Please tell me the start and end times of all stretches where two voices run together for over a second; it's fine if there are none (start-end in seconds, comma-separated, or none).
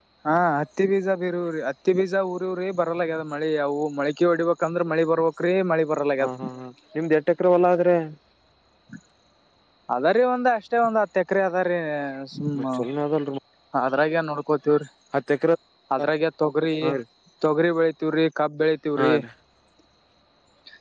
none